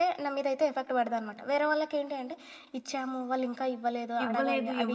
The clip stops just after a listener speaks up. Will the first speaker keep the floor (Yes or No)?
No